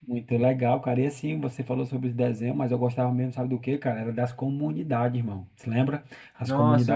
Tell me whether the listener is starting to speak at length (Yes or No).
Yes